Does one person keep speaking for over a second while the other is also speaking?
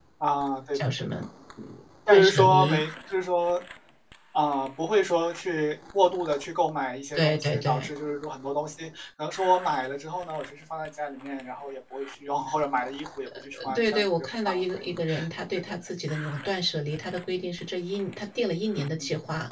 Yes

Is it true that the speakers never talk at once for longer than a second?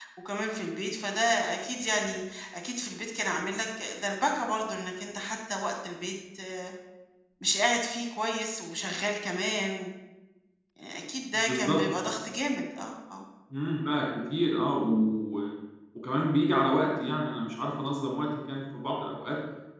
Yes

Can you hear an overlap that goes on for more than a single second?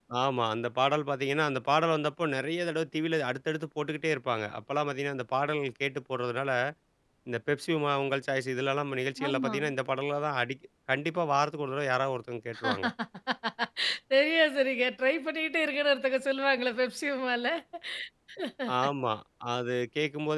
No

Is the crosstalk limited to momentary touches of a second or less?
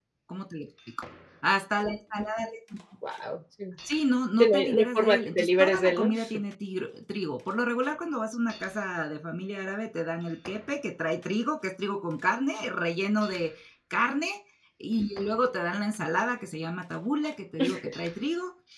No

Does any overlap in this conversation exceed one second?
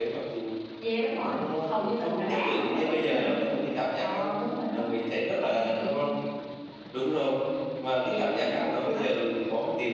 Yes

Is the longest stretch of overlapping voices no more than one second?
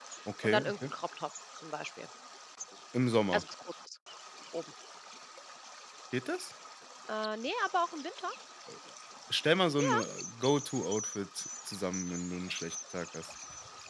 Yes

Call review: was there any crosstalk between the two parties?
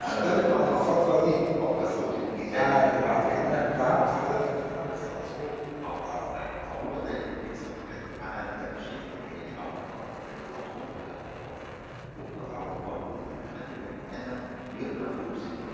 Yes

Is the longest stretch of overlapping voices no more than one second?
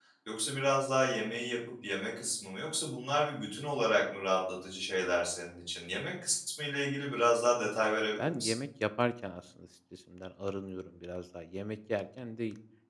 Yes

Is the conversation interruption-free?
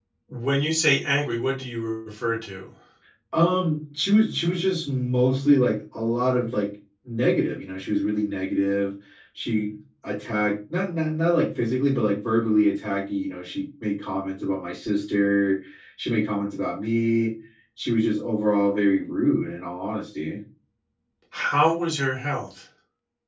Yes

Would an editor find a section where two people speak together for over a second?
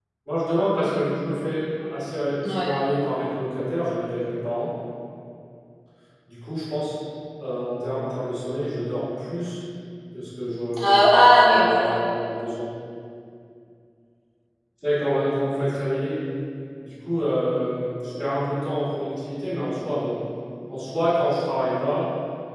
Yes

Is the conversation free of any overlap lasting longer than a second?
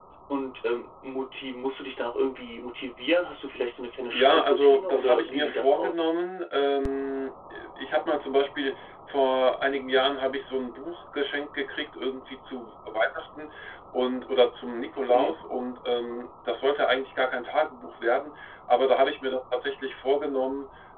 No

